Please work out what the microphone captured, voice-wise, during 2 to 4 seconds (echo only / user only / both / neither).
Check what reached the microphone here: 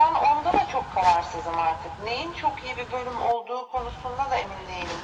echo only